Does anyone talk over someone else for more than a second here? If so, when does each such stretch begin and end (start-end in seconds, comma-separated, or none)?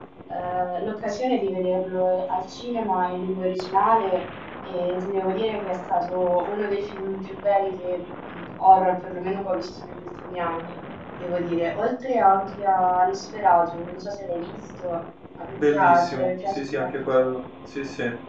15.5-17.3